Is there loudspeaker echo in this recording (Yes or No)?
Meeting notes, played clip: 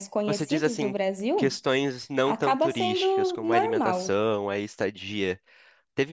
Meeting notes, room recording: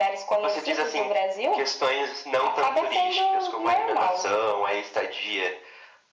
Yes